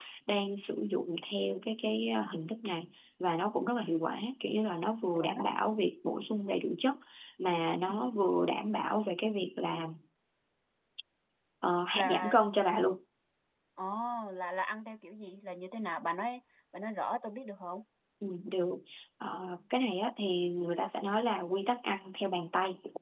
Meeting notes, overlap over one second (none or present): none